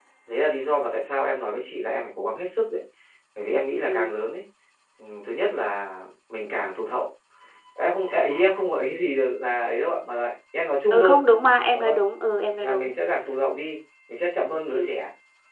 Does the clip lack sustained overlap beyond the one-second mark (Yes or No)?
Yes